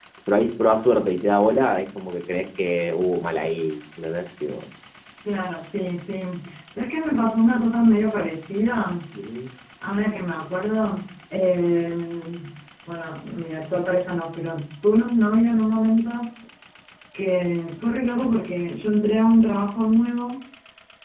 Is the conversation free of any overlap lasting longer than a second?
Yes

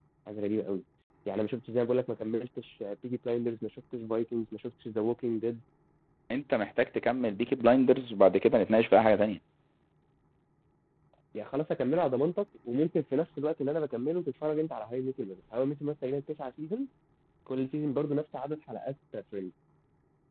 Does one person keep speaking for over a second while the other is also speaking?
No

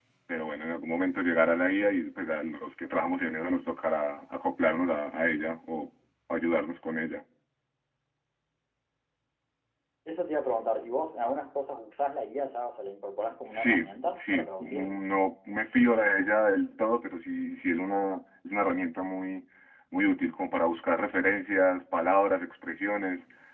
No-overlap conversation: No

